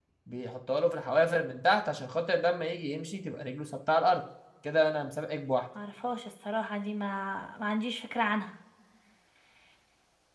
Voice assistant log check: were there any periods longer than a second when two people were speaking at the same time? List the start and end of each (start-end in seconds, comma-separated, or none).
none